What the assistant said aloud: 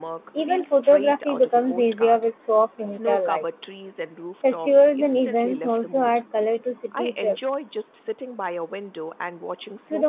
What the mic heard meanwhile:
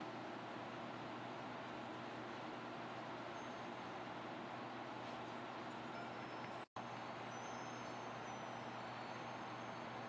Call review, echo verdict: none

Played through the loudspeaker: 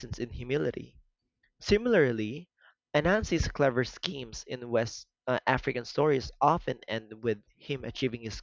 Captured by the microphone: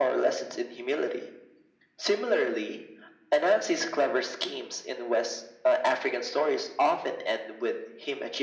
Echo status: present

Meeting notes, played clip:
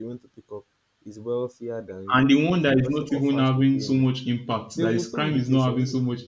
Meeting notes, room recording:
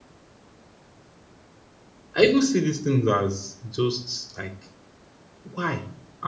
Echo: none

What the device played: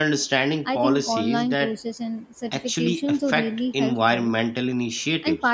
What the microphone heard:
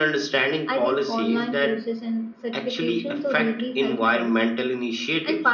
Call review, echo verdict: present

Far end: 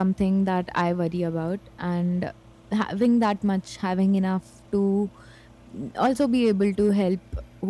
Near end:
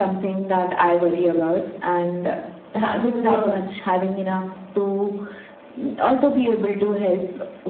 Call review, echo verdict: present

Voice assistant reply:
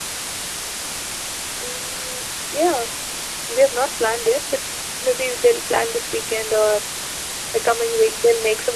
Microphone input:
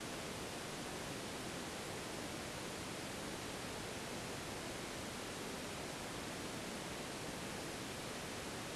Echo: none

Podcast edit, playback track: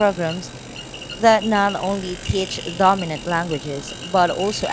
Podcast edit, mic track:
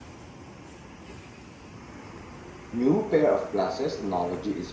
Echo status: none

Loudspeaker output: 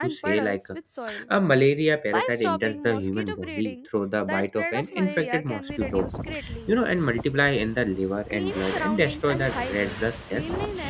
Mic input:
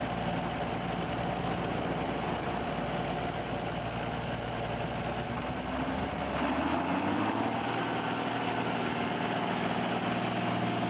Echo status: none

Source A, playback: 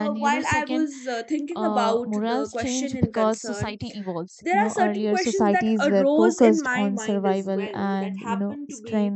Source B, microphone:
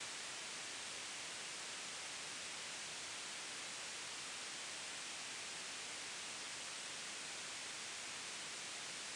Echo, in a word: none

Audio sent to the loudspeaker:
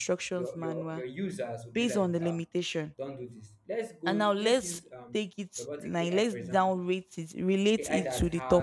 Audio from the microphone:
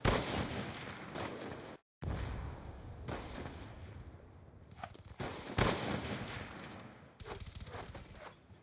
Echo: none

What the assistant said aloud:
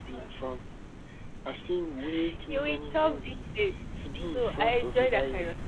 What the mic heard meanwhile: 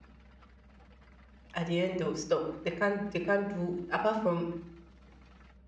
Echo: none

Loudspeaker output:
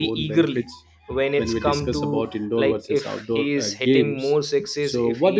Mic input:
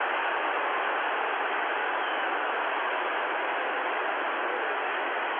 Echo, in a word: none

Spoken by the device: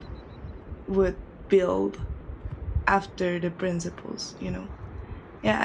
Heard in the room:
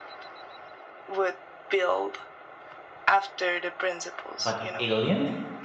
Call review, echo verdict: present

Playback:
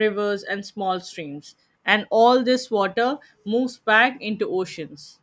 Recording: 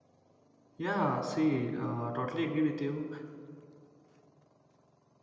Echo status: none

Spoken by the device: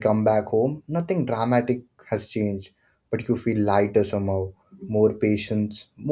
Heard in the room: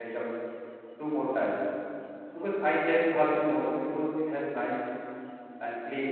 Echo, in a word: none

